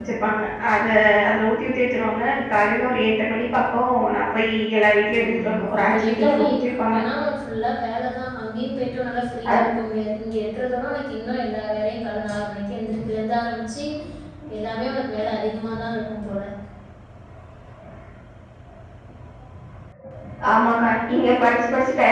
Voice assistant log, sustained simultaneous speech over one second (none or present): present